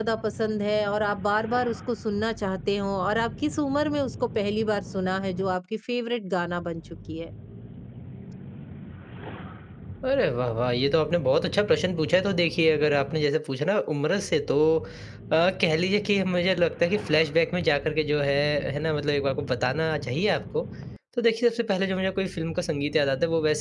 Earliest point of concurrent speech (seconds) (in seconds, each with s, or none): none